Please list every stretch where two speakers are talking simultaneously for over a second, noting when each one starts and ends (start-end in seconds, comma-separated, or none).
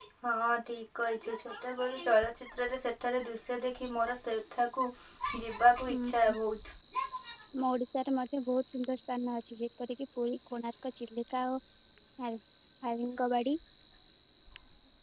none